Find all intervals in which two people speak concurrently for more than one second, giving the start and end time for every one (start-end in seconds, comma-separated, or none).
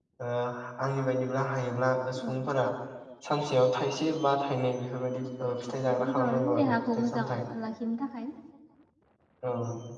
5.7-7.3